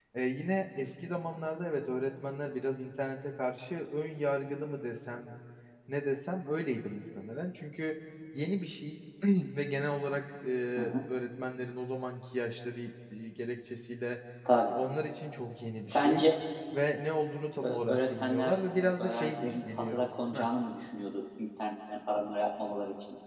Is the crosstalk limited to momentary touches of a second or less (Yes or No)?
No